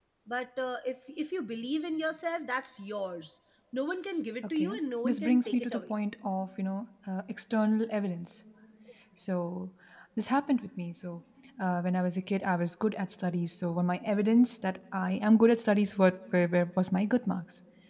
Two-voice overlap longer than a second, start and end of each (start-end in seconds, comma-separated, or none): 4.6-5.9